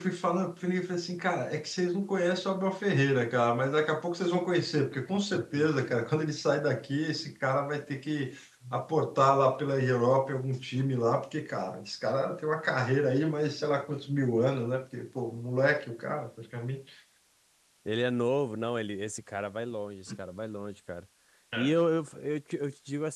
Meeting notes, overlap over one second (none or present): none